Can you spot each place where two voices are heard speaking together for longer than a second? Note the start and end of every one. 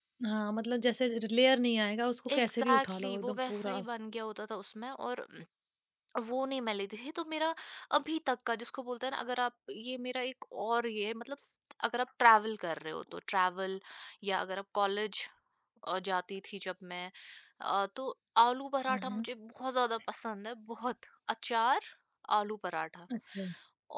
2.3-3.9

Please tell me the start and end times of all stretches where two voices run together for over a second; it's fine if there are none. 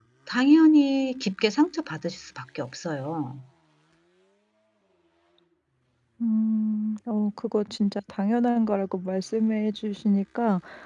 none

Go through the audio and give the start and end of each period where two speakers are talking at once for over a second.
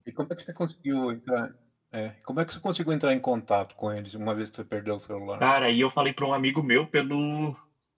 none

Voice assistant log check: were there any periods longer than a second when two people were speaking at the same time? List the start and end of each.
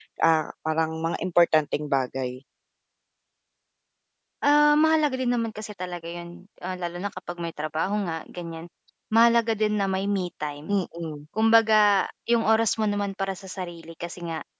none

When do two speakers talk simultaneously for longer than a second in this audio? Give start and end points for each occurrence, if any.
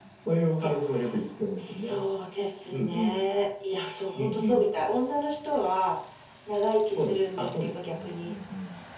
7.0-8.3

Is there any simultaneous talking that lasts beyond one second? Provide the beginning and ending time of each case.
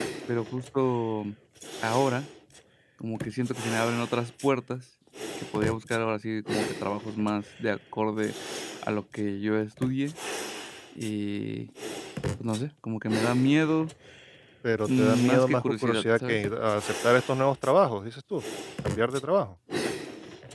14.9-16.4

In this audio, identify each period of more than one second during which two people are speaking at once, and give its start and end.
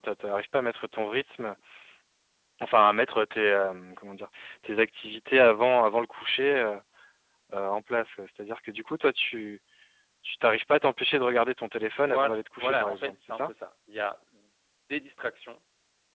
12.0-13.5

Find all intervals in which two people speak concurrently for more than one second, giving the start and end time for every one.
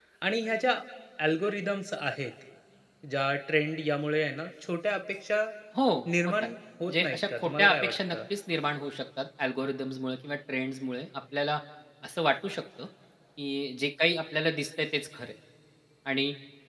6.9-8.2

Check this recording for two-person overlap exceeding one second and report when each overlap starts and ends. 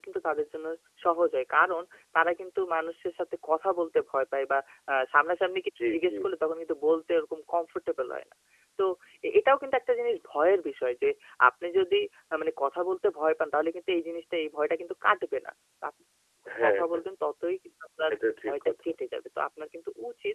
none

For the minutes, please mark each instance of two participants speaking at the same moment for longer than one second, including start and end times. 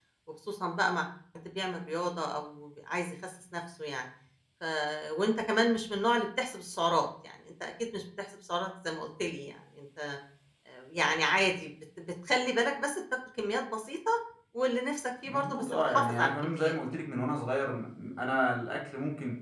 15.2-16.8

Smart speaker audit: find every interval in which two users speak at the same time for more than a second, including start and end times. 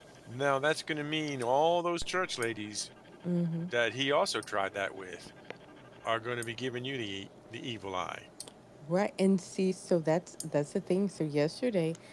none

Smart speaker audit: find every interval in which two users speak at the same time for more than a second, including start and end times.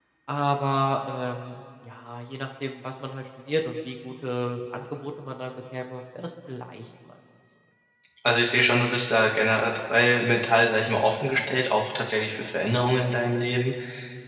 none

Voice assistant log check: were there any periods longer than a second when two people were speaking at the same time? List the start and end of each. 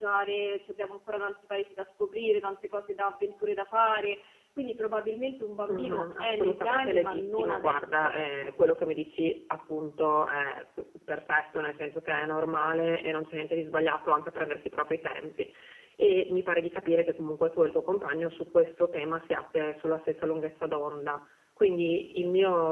5.7-8.5

